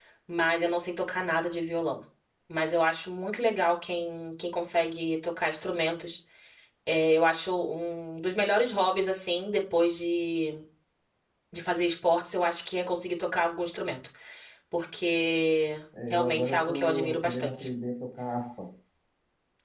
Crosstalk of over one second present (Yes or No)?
Yes